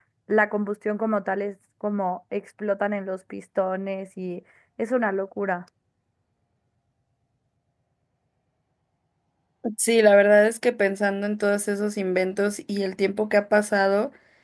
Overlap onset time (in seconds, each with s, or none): none